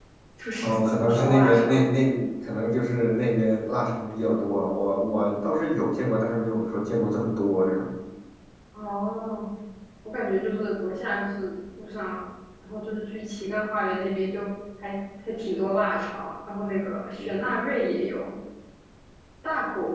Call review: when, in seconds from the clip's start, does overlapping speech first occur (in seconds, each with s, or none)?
0.6 s